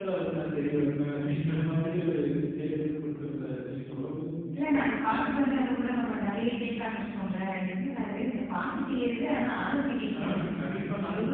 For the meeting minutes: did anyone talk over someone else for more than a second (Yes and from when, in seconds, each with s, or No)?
No